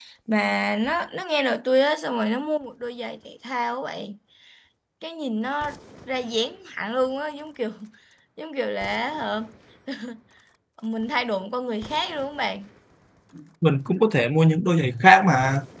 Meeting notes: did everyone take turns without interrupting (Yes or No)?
Yes